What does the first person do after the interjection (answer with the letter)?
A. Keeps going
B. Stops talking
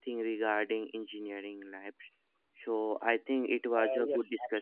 B